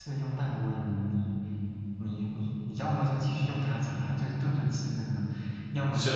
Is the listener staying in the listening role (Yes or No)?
Yes